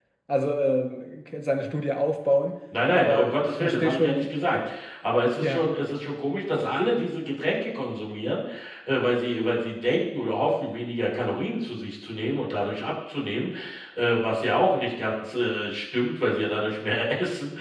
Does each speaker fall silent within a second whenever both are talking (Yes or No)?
No